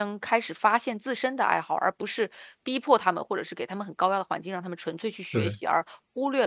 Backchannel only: Yes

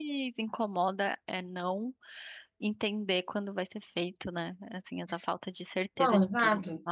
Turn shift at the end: Yes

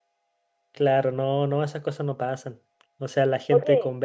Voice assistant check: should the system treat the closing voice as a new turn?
No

